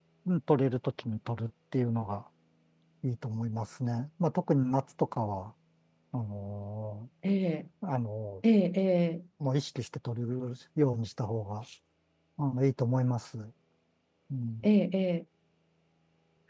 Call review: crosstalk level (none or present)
none